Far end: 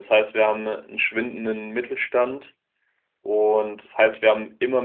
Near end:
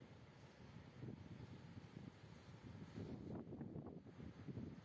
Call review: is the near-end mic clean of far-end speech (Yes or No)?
Yes